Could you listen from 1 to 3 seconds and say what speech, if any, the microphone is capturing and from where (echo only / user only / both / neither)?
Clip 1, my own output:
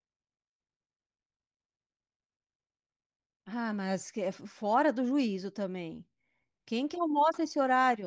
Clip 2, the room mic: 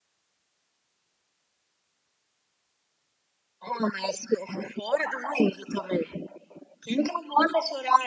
neither